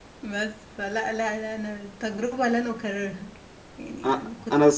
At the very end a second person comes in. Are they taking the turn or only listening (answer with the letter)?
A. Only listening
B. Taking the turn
B